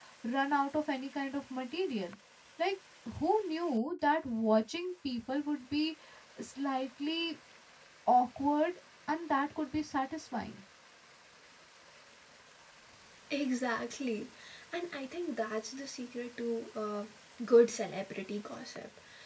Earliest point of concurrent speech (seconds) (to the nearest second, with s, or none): none